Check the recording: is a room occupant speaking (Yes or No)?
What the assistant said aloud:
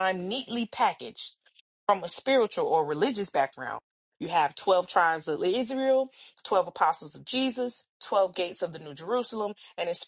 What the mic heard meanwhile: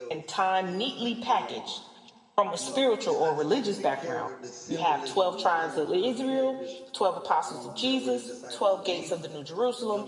Yes